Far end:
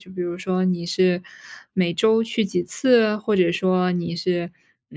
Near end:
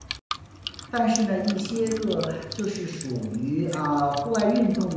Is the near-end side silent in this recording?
No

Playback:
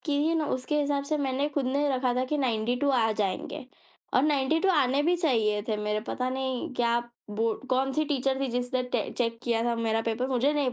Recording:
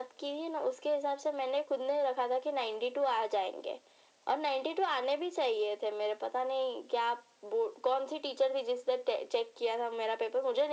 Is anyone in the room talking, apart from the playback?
No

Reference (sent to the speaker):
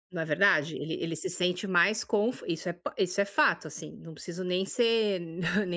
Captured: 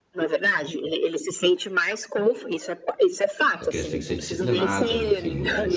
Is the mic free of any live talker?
No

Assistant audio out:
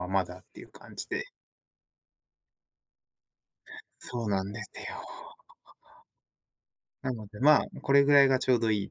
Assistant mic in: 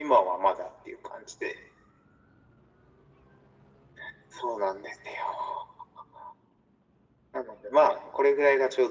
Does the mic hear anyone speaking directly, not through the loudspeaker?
No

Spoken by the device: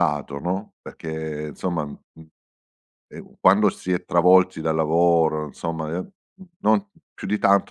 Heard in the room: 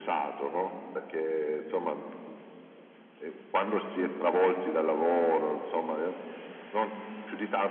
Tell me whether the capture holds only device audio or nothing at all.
Yes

